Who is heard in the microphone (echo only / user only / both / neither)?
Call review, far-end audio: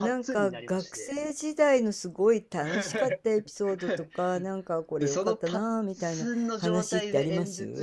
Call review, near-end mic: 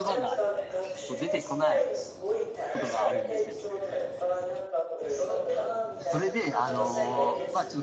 both